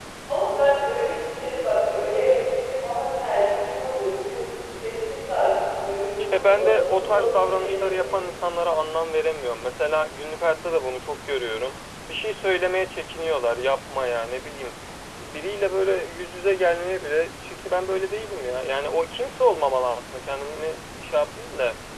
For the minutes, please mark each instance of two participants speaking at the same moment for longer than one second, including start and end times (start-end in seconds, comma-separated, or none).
6.3-8.1